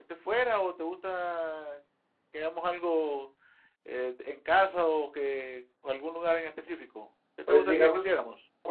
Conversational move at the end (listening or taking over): taking over